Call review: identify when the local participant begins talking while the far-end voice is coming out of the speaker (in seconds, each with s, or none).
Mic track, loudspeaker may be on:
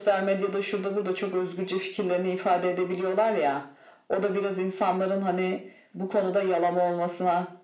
none